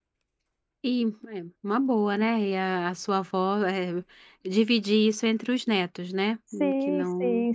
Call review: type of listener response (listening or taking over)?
taking over